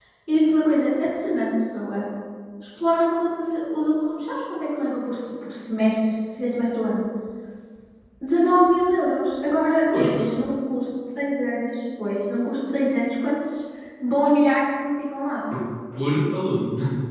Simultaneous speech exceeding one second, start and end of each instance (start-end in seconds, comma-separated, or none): none